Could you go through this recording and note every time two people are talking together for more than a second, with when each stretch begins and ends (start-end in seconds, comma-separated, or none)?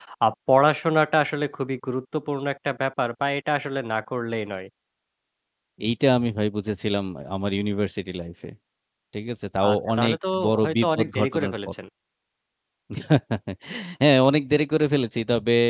9.6-11.7